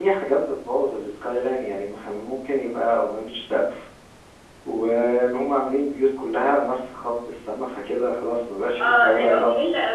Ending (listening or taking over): taking over